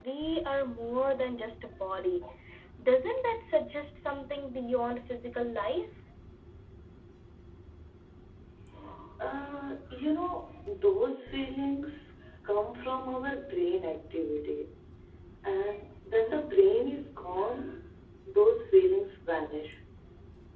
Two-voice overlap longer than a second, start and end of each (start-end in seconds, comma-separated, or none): none